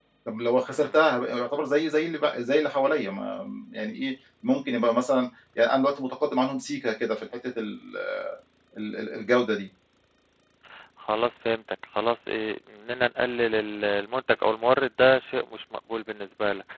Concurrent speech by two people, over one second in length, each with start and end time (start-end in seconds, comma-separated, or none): none